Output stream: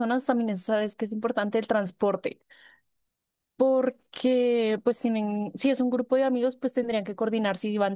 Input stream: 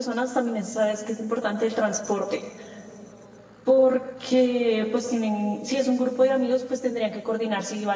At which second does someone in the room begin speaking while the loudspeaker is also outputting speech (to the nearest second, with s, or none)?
none